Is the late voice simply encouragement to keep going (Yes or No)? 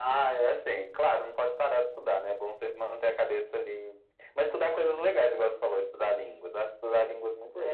No